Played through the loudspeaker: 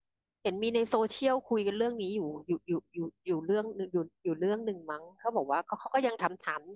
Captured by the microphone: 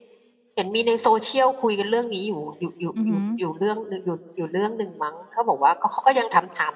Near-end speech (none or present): present